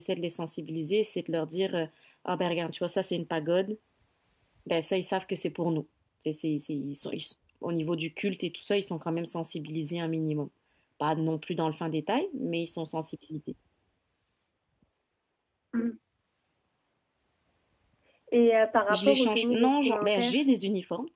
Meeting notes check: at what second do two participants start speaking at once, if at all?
18.9 s

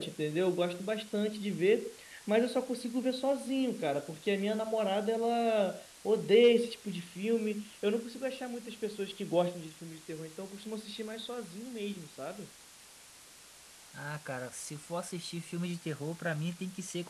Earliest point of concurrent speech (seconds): none

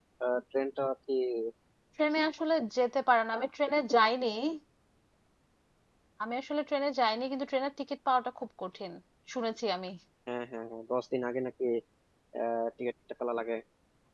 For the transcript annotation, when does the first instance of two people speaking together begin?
none

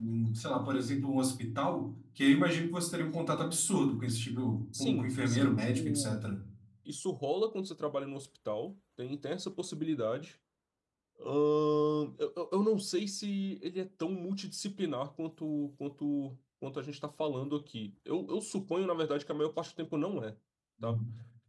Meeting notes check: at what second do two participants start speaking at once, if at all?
4.7 s

